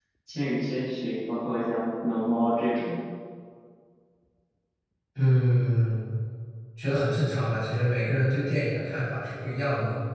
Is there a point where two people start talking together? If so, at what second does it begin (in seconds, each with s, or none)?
none